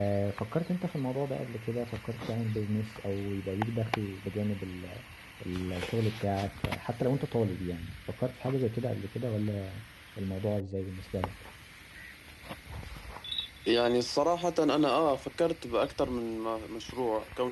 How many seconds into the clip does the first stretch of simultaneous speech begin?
none

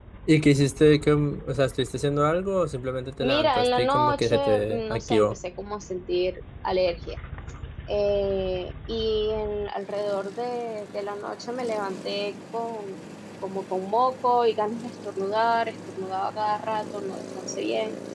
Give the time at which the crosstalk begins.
3.2 s

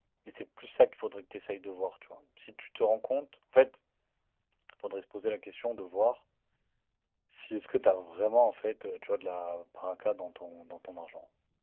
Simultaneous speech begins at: none

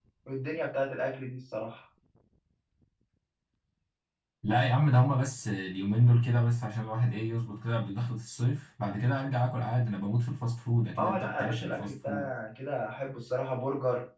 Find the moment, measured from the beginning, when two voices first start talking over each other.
11.0 s

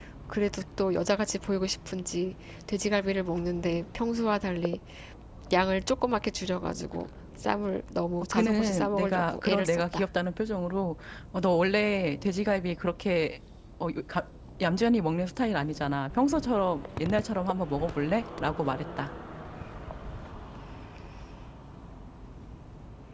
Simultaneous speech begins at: 8.3 s

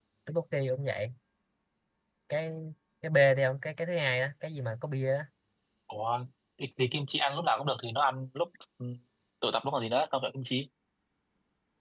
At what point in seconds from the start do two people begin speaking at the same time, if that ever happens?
none

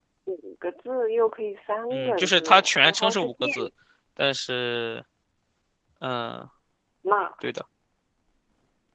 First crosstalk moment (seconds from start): 1.9 s

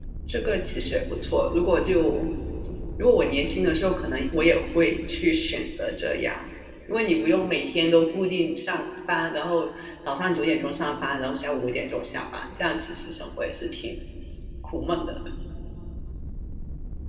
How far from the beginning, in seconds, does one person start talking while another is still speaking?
none

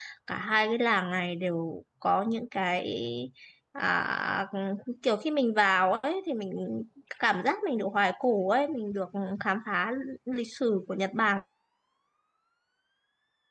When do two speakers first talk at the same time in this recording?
none

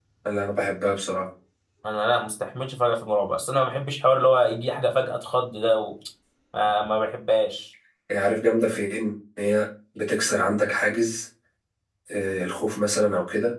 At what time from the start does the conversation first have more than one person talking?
none

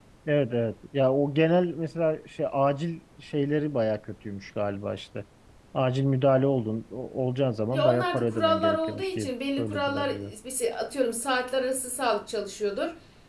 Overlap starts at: 7.7 s

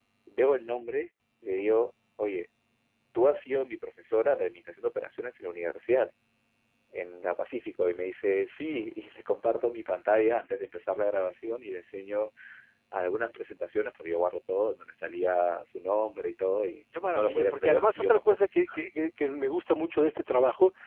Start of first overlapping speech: 16.9 s

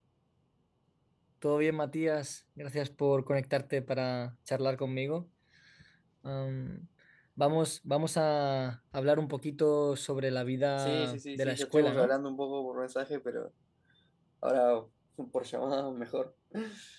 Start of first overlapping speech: 10.8 s

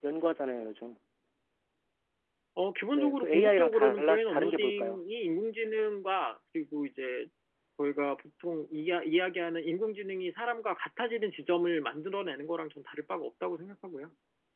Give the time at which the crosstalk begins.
2.9 s

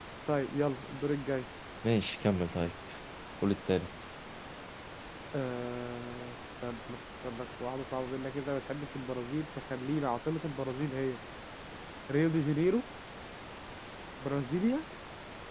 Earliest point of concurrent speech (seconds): none

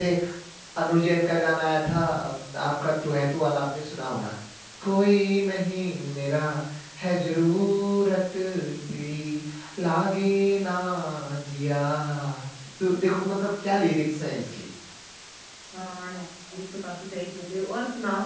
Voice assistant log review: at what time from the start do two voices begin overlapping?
none

